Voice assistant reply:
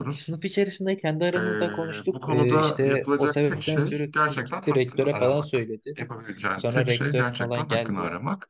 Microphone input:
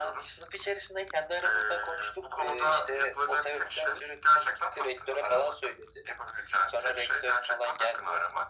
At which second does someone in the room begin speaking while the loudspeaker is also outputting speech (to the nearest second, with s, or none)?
none